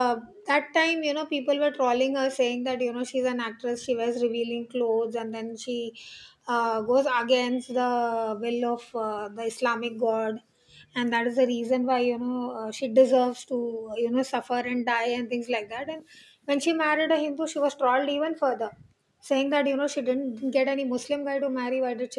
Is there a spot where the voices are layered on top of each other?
No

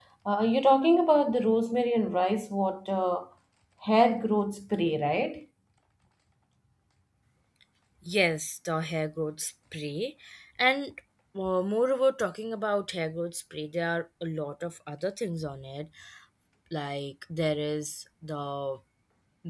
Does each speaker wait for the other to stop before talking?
Yes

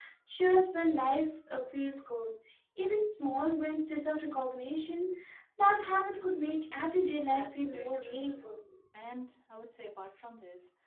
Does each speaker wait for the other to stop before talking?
No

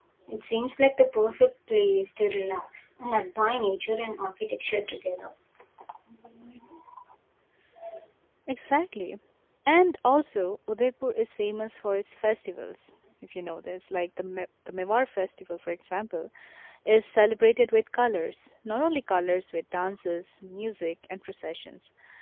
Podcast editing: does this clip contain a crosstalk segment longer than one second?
No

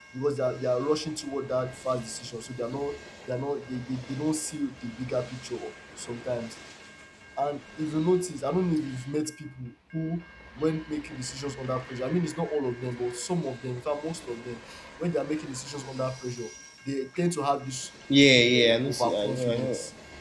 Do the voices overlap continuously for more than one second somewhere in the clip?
Yes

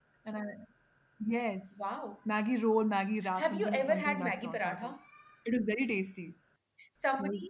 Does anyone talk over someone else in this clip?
Yes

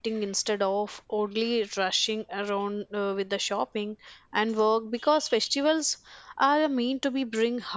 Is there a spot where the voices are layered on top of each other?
No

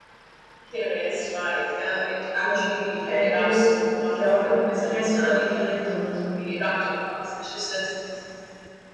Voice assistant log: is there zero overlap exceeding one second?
No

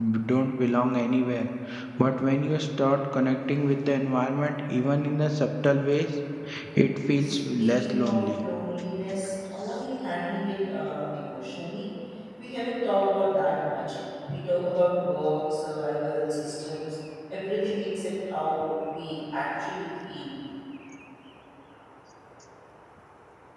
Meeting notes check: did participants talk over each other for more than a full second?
Yes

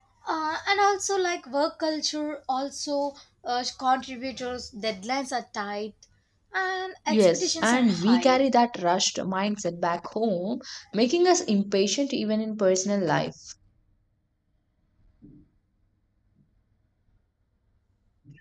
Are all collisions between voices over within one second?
No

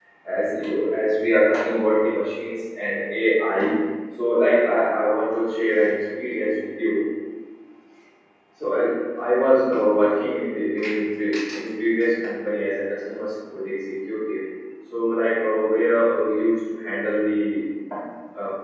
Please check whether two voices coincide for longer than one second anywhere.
No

